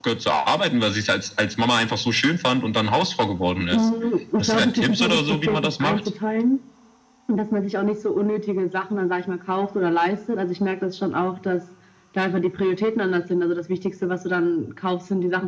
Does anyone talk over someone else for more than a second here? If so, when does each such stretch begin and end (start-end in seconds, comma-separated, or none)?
4.4-6.1